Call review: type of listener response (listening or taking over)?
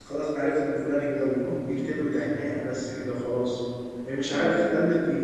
listening